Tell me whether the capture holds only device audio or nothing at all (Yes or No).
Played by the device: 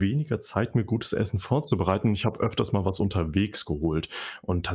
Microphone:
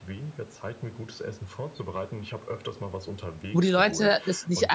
No